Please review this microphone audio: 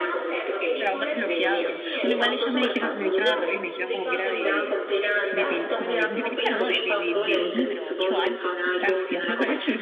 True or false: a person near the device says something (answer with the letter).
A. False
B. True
B